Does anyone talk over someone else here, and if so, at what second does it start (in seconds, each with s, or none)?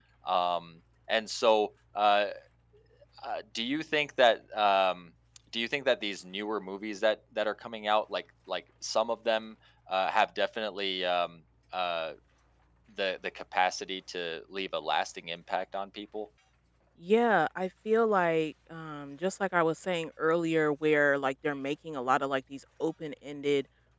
none